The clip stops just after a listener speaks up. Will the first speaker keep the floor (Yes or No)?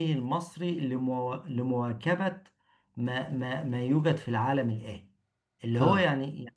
Yes